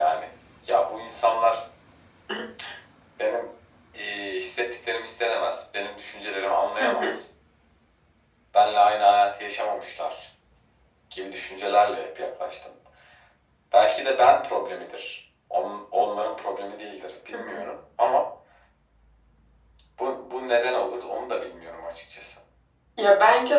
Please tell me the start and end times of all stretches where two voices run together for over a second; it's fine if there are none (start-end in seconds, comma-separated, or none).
none